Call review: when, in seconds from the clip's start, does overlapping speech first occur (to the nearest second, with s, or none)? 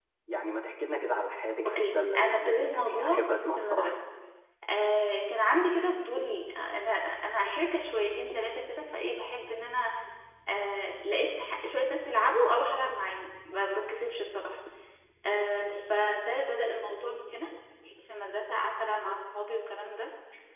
2 s